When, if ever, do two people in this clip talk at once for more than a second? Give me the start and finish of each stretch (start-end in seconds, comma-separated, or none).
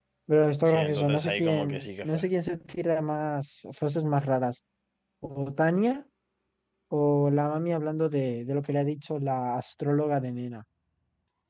0.6-2.2